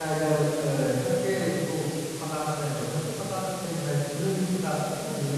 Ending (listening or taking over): listening